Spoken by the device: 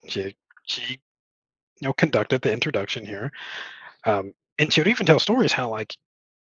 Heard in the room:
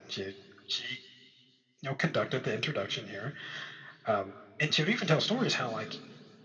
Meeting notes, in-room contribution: none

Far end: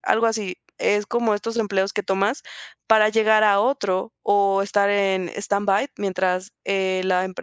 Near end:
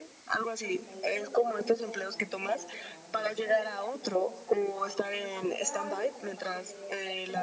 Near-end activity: present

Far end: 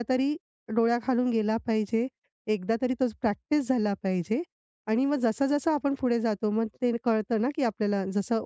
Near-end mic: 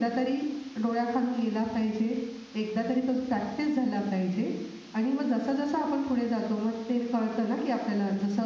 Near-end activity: none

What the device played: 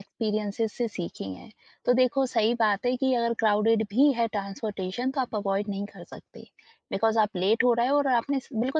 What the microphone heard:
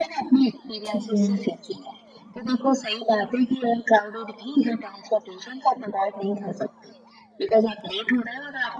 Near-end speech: present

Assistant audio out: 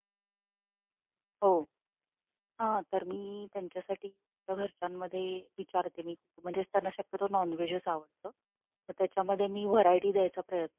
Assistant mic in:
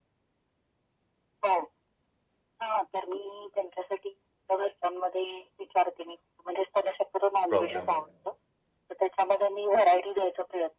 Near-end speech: present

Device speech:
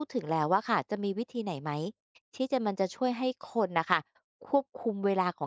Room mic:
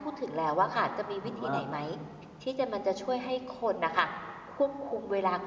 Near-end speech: present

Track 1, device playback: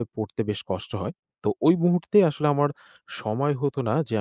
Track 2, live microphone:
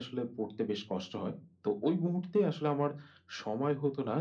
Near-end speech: none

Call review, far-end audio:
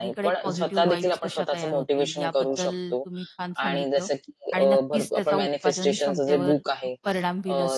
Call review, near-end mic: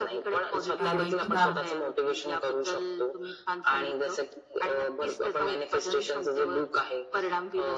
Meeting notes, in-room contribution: present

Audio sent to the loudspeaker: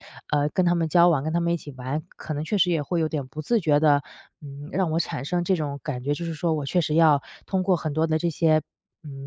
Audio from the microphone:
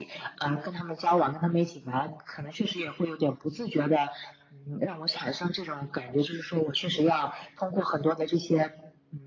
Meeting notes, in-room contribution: none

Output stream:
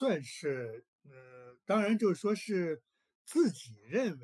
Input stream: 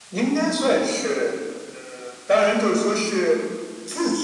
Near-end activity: none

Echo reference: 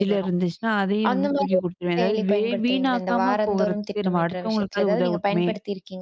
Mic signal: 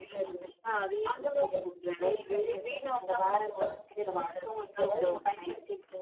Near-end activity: none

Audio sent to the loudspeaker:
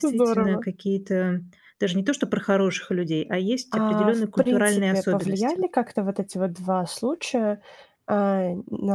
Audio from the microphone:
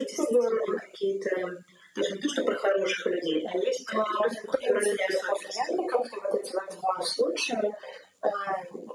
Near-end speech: none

